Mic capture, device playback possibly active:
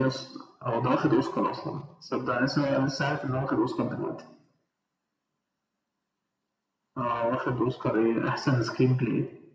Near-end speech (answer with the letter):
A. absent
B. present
A